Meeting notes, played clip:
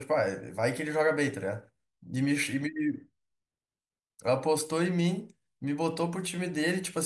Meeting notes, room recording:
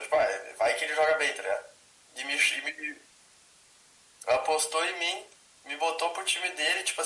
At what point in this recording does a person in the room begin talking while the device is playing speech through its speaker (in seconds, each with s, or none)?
none